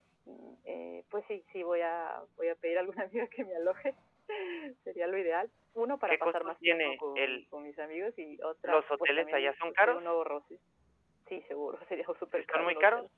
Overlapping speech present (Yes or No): Yes